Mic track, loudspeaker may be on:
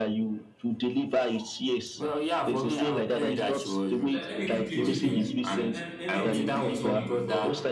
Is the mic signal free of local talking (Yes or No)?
No